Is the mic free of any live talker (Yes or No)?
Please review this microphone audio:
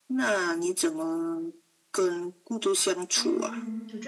No